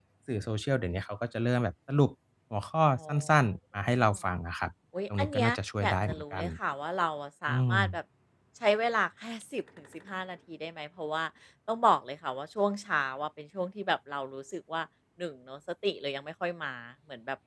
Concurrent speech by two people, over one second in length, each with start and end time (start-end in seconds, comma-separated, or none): 5.2-6.5